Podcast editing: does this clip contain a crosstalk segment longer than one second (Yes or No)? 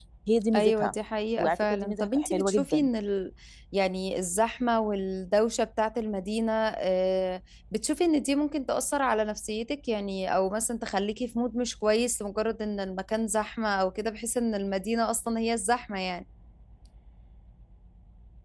Yes